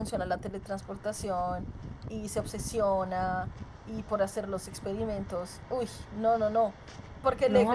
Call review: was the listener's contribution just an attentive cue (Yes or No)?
Yes